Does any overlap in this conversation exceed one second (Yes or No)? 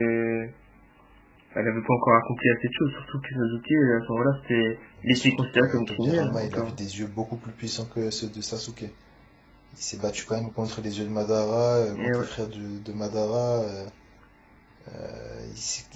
Yes